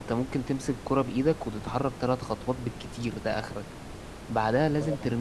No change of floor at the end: Yes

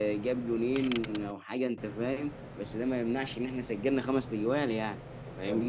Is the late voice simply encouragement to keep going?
No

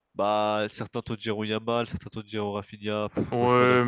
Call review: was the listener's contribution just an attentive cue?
No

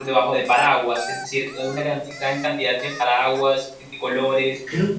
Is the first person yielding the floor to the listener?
No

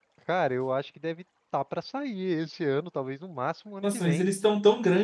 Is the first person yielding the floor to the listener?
Yes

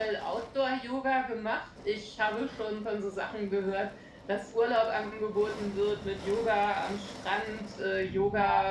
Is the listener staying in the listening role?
Yes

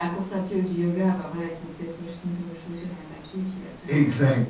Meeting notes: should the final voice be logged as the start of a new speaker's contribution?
Yes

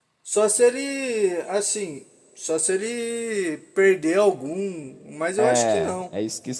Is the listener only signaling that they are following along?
No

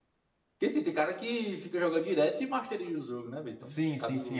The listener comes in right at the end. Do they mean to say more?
Yes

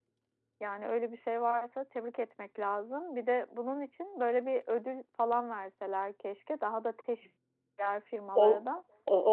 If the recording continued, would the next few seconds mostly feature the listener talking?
Yes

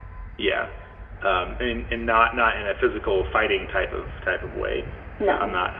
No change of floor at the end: Yes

